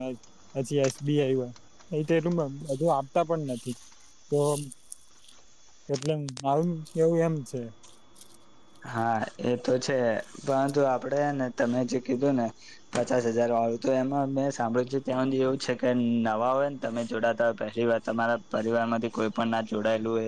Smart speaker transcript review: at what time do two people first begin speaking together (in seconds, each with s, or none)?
none